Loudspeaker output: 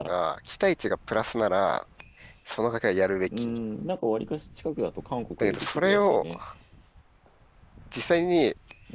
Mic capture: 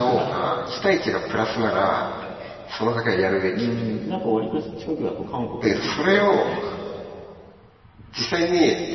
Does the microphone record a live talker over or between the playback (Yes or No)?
No